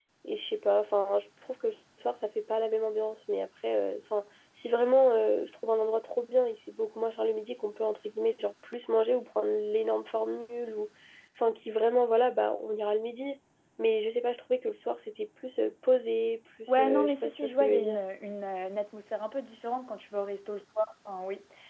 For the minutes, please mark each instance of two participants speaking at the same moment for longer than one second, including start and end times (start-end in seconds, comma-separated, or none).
16.8-18.0